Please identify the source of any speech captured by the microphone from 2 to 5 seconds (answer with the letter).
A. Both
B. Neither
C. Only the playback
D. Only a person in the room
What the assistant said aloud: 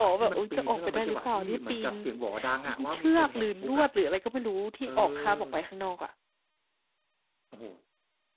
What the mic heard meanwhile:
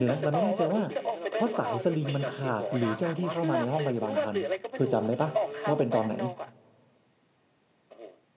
A